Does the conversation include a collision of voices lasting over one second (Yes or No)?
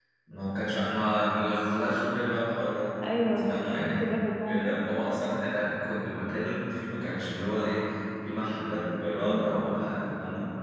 Yes